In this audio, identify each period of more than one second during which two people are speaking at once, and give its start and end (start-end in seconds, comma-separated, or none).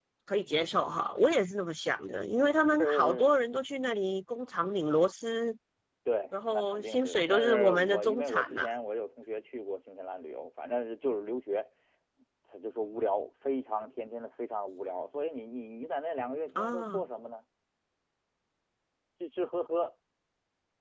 6.5-8.7